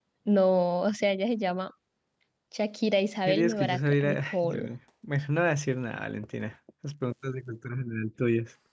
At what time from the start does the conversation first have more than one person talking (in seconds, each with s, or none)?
3.2 s